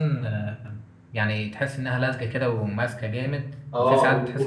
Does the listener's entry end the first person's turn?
Yes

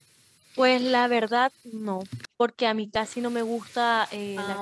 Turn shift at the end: No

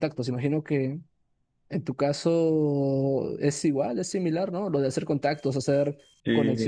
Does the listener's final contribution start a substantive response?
No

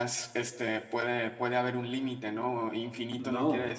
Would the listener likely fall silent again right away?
Yes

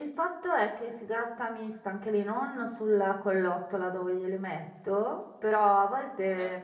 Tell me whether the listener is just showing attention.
Yes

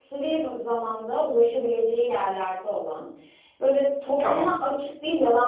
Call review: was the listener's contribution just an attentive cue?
Yes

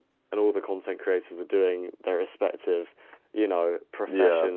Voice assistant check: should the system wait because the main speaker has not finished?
Yes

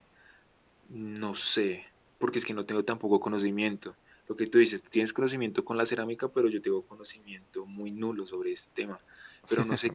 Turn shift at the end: No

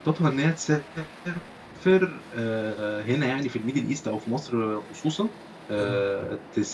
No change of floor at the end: Yes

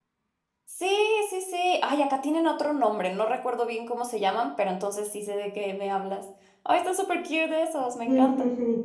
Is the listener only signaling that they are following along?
No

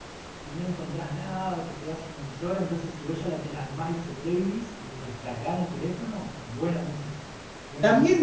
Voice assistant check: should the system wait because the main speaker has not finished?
No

